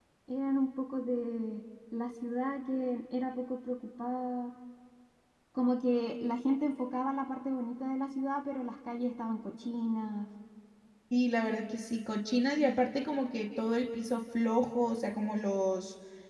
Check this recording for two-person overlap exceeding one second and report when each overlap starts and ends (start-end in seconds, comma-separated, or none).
none